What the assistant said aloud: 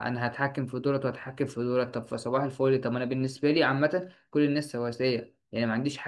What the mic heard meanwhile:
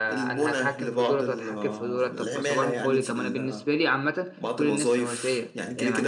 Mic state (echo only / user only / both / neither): both